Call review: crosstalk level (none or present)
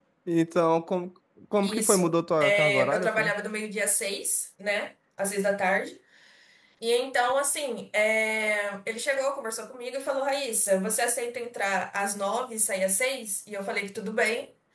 present